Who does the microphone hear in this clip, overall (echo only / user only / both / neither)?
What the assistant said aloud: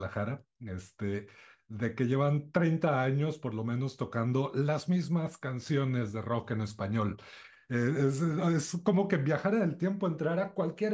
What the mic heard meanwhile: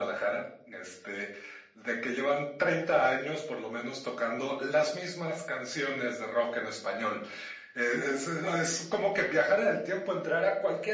echo only